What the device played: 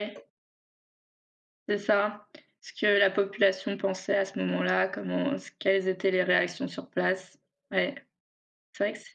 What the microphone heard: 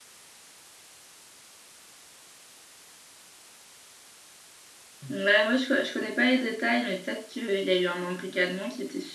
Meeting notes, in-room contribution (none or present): present